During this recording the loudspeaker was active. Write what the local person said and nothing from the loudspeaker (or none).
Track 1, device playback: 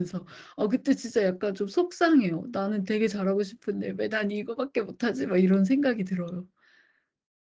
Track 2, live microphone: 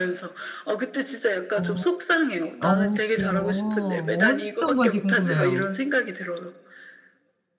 어. 어 그래요? 어떤 건지 궁금해요.